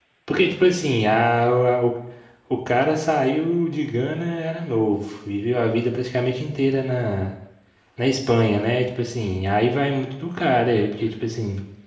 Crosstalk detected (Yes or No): No